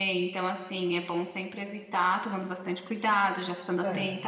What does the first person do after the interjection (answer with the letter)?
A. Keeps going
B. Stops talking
A